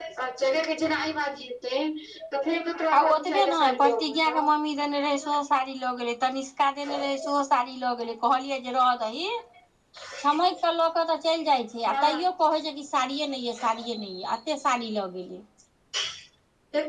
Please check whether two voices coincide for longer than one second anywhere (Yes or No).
Yes